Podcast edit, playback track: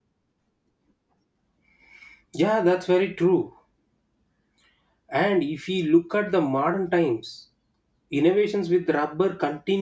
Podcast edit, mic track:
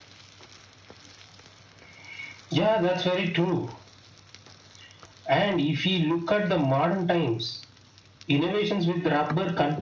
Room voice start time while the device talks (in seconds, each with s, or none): none